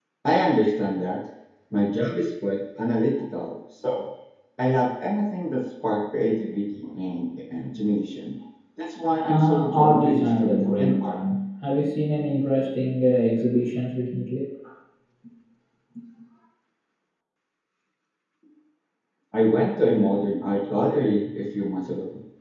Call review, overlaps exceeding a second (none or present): present